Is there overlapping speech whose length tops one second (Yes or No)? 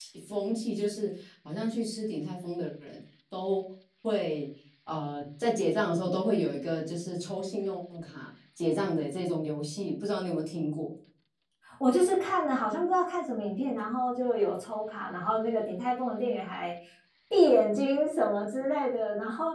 No